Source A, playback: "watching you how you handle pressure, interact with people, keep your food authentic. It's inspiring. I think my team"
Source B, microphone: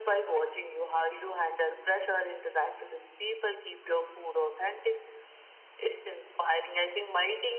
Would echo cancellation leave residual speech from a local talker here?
No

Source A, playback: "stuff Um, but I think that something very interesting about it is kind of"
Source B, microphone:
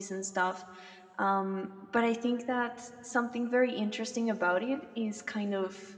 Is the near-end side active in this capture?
No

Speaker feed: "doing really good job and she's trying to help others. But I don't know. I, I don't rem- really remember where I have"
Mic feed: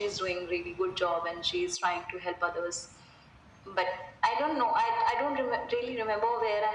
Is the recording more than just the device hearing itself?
No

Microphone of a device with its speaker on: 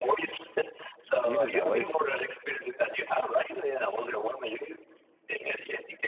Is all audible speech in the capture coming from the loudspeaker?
No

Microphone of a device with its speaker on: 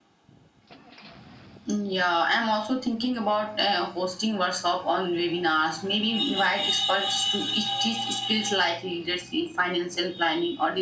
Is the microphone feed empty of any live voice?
Yes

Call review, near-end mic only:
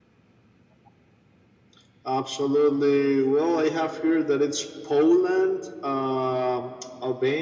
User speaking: No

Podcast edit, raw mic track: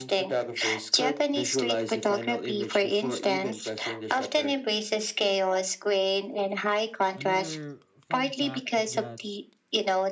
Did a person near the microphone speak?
Yes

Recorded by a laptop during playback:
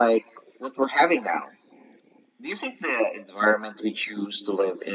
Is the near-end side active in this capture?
No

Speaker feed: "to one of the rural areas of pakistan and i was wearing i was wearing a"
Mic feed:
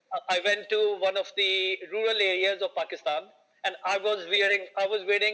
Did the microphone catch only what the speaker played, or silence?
Yes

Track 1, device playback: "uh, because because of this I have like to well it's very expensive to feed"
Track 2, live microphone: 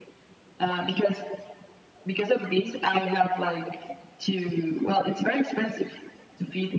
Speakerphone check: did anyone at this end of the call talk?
No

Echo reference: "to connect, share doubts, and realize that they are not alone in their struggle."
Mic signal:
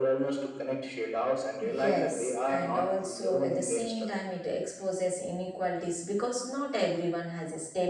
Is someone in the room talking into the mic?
Yes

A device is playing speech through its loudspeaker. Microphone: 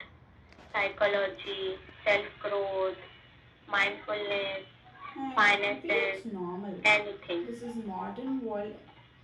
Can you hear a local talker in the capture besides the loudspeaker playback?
Yes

